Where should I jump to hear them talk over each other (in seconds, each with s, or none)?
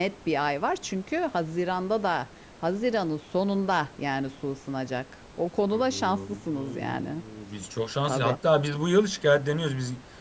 5.7 s